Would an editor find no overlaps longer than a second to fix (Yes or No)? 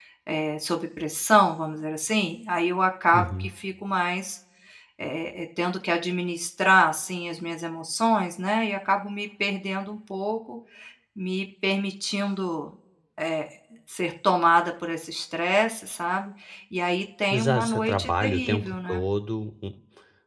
No